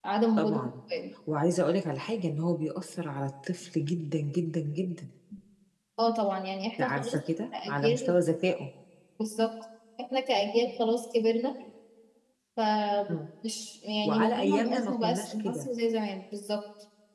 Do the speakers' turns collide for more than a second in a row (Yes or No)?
Yes